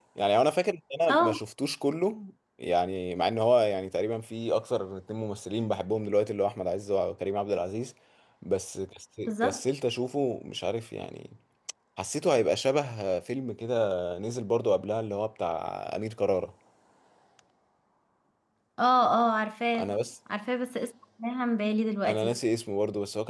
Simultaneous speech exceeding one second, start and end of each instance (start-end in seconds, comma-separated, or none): none